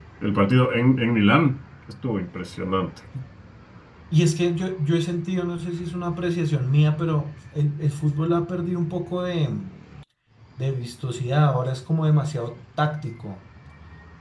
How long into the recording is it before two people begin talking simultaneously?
none

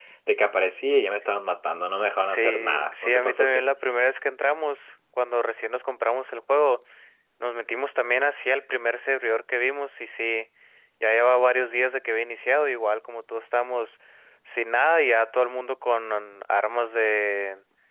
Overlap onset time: 2.2 s

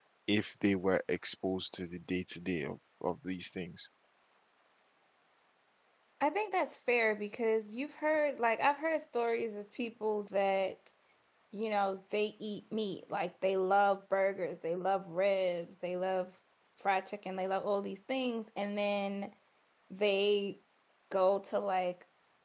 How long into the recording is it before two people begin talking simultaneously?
none

